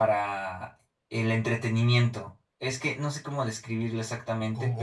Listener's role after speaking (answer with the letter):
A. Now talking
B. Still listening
B